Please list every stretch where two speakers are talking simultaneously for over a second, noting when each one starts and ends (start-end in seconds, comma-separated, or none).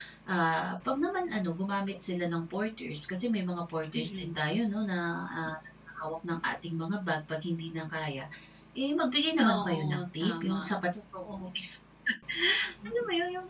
9.5-10.7